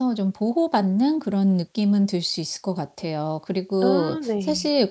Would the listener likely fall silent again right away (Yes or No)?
Yes